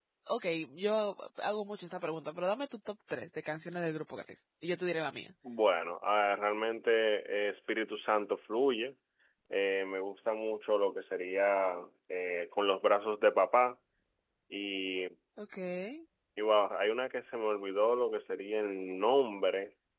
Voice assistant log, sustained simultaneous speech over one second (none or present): none